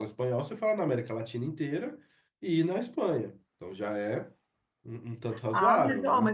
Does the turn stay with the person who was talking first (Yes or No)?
No